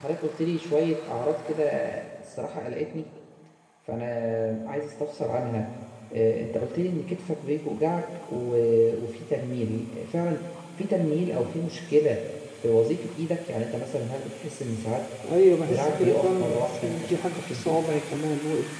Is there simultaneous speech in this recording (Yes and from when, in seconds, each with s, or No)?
Yes, from 15.7 s